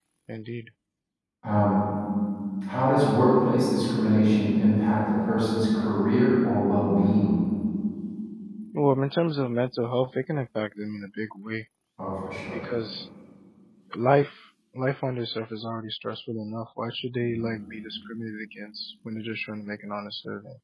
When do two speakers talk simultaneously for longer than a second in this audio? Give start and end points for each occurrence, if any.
none

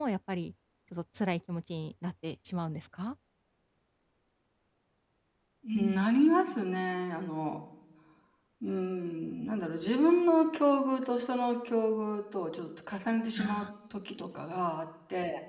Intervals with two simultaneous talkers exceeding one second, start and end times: none

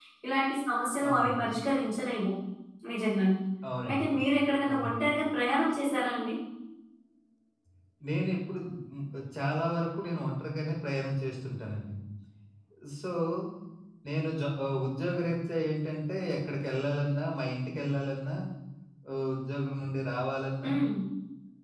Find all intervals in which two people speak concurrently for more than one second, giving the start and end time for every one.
none

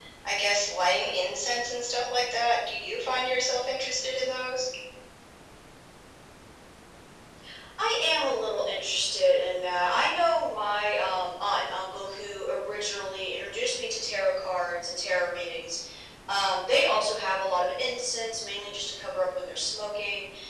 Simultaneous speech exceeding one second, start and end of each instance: none

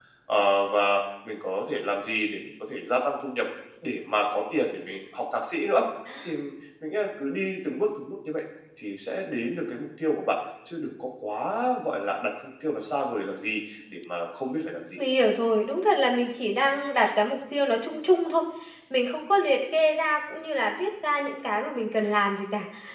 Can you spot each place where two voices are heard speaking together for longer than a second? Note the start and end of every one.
none

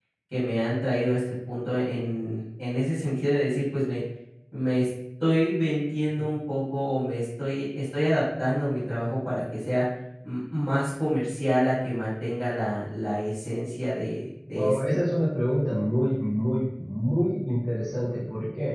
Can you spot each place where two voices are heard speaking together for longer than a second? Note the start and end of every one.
none

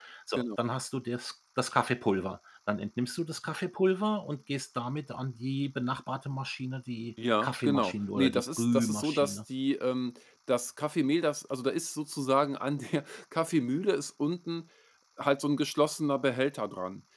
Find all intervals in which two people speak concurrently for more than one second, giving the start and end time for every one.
7.4-9.4

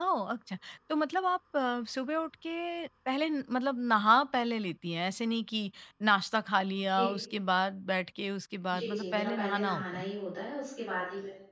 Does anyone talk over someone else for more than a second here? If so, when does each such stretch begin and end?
8.8-10.1

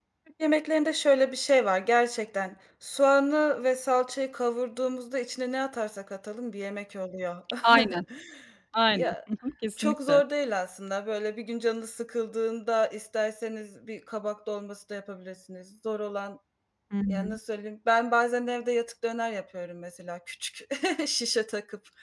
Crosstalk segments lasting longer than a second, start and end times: none

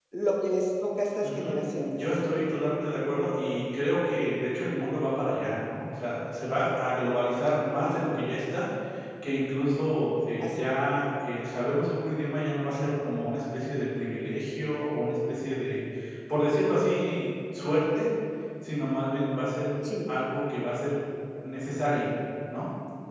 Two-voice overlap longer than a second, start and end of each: none

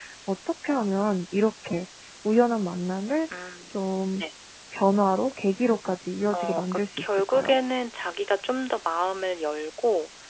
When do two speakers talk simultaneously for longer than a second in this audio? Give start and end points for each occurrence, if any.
6.3-7.6

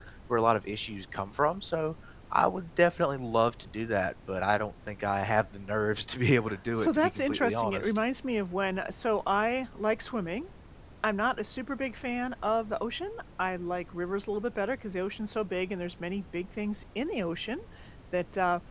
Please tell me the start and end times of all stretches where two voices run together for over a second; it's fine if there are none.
6.8-8.0

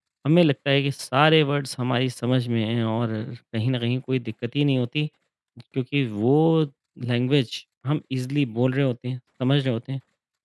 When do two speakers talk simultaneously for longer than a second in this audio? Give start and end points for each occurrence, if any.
none

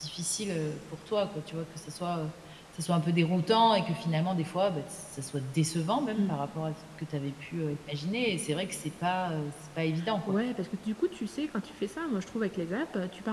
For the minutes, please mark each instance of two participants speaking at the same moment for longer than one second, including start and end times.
none

